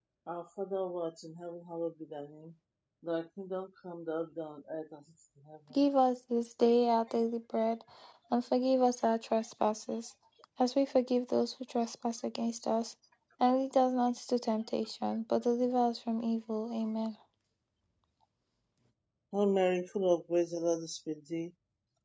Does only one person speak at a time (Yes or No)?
Yes